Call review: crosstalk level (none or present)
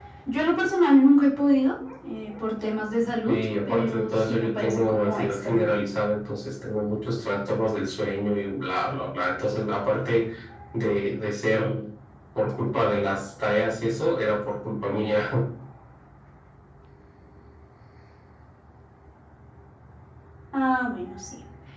present